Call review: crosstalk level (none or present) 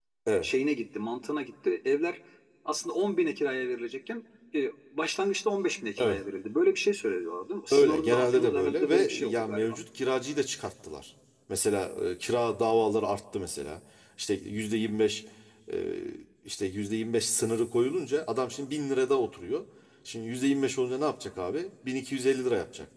present